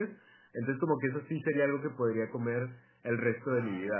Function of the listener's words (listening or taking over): taking over